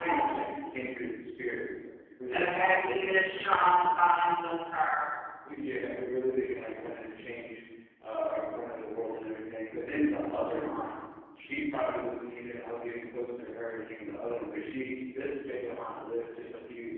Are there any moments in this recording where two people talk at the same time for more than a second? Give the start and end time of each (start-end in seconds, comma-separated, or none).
2.3-3.8